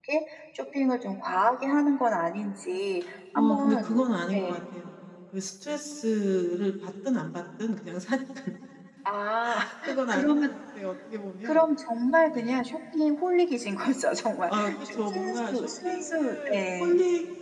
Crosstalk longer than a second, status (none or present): present